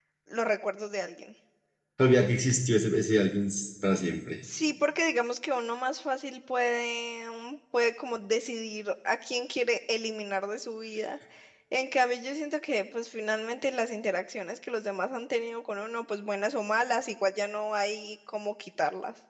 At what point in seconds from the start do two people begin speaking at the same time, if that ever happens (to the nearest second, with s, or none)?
none